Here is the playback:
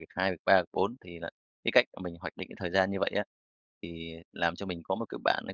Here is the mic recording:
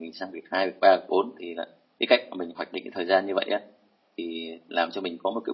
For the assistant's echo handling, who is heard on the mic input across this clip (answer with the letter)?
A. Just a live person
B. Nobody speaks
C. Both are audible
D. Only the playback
D